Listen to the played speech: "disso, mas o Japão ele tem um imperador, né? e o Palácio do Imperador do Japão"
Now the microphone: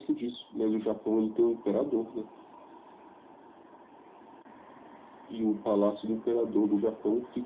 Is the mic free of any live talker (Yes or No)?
Yes